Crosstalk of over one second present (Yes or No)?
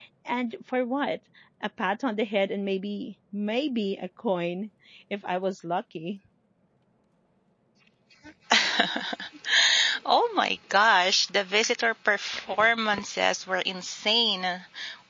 No